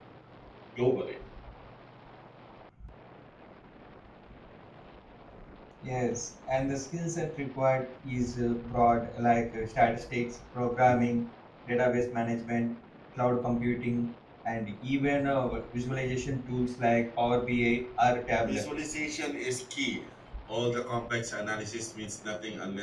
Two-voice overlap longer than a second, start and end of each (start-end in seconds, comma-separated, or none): none